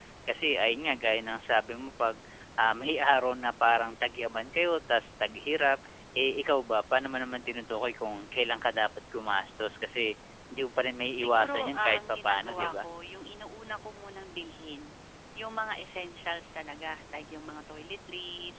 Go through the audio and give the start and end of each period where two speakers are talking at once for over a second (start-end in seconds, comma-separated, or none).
11.2-12.7